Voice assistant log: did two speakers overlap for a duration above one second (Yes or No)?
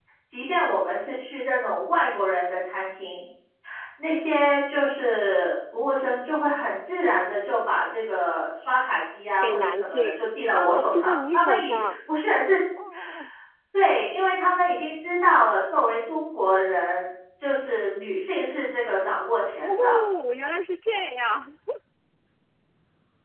Yes